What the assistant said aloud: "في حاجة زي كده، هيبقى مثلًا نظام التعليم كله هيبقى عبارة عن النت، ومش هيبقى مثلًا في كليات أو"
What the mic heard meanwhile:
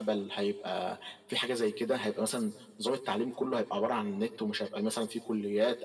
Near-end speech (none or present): none